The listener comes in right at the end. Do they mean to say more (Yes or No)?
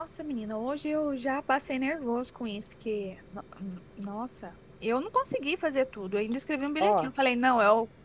No